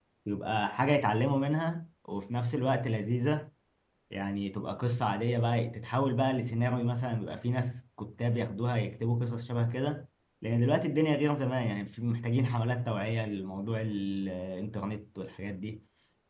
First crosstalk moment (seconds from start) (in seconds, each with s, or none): none